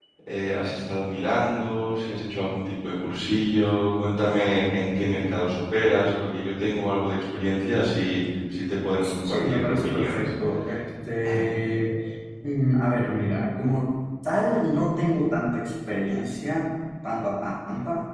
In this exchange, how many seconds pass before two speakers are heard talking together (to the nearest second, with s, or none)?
9 s